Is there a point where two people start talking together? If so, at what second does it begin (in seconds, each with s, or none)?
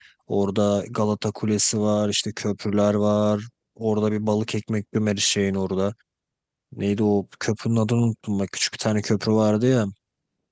none